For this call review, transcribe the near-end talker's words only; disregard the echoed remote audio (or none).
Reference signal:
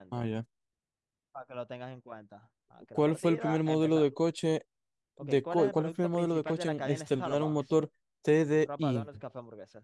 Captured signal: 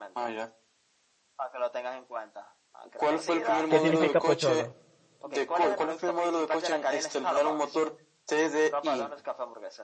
¿Qué significa pocholo?